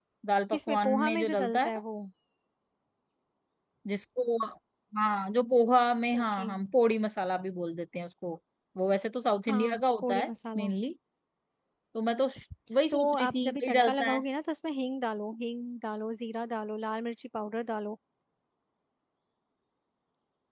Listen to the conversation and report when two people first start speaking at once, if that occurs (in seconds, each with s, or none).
0.5 s